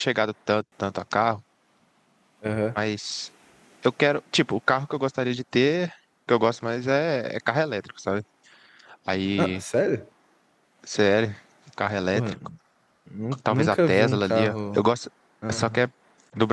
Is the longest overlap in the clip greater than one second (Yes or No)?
Yes